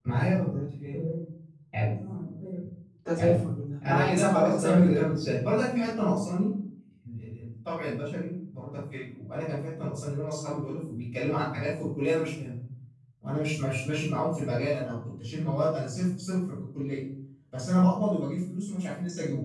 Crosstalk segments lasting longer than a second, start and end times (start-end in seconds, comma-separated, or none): 3.9-5.2